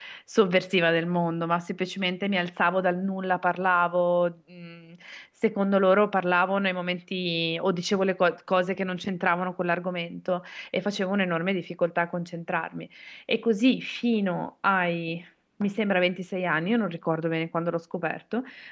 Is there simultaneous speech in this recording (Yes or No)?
No